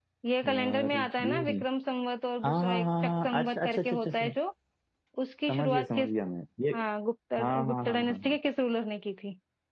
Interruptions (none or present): present